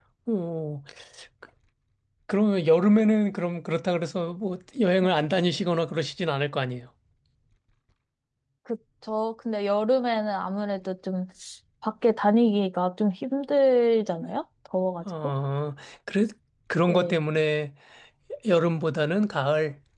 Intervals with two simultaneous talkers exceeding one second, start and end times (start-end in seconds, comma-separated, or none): none